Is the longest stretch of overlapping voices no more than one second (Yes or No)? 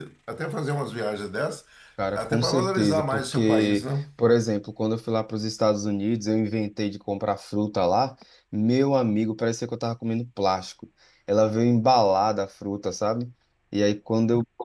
No